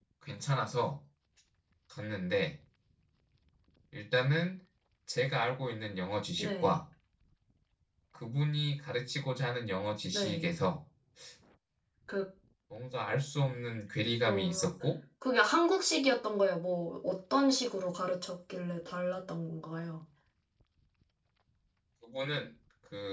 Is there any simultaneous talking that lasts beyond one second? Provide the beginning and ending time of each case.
none

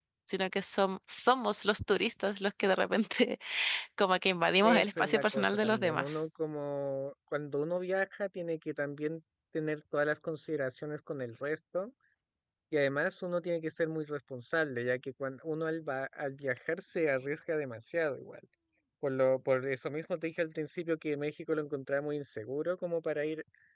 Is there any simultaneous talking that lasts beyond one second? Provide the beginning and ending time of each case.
4.6-6.2

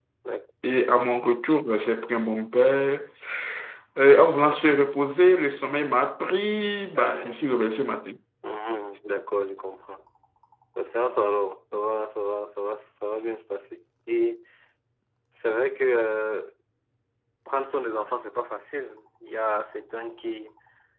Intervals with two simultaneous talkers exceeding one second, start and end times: none

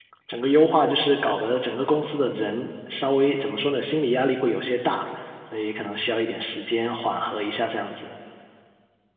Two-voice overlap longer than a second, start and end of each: none

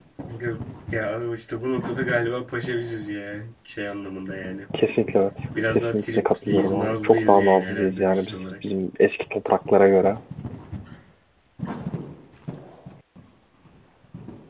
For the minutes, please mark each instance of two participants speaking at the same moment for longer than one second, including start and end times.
5.7-8.5

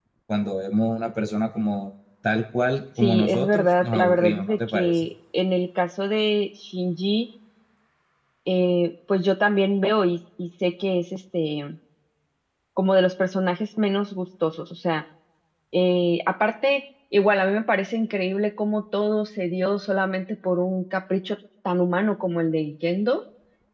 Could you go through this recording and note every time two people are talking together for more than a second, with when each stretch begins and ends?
3.0-5.1

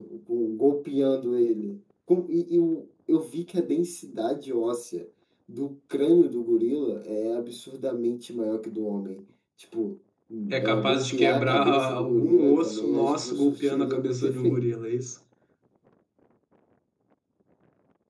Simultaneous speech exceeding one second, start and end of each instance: 10.5-14.6

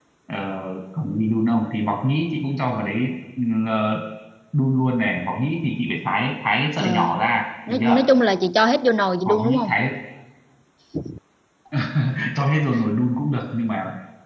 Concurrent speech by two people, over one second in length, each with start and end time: none

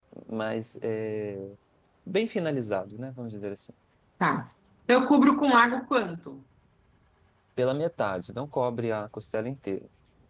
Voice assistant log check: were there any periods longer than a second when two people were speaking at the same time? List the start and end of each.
none

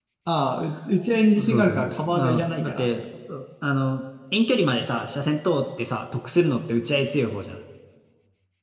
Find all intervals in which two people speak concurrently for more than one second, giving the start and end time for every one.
1.4-2.9

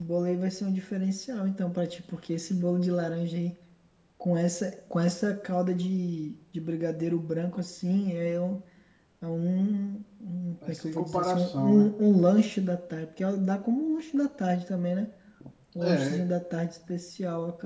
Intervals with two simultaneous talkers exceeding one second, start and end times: 10.7-11.9

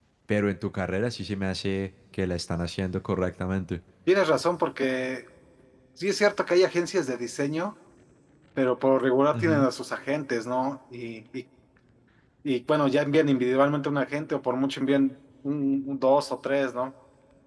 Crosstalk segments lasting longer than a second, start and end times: none

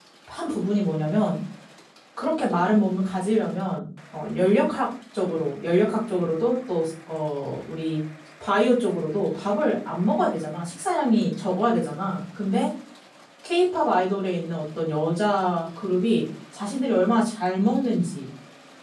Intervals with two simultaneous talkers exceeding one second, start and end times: none

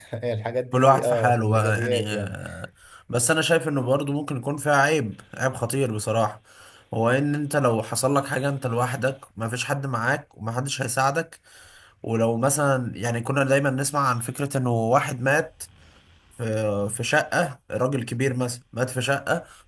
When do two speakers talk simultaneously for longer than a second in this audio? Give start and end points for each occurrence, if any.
0.7-2.4

